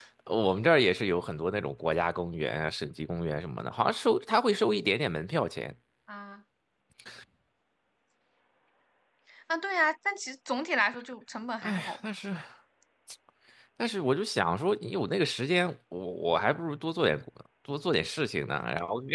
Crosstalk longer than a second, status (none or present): none